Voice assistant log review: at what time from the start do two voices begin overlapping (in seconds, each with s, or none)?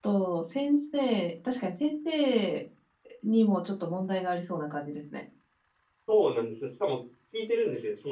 none